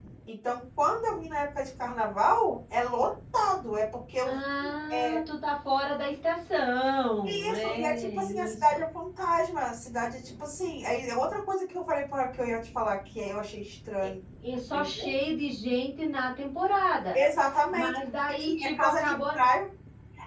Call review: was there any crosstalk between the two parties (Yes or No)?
Yes